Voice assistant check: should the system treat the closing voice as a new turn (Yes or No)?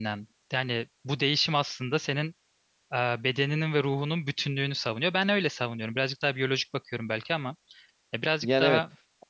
Yes